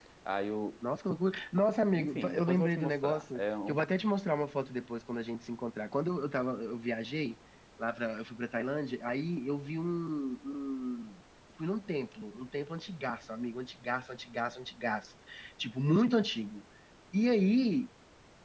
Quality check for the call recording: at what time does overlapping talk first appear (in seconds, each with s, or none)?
1.9 s